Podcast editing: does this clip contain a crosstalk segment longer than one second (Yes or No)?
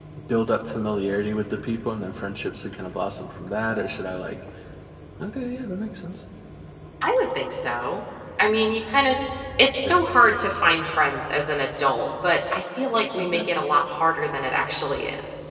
No